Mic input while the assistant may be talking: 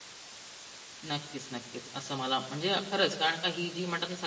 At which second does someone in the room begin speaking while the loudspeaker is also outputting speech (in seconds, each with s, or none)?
1.0 s